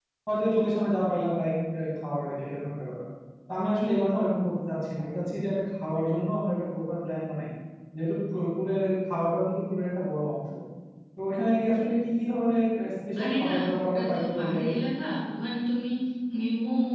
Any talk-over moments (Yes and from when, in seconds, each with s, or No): Yes, from 13.2 s